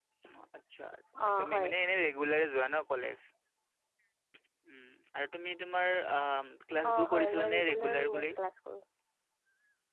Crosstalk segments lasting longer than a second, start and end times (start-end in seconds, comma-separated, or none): 6.9-8.2